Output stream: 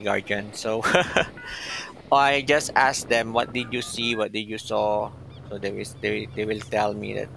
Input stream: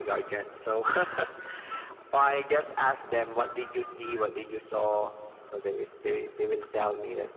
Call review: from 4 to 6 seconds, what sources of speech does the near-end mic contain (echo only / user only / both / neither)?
echo only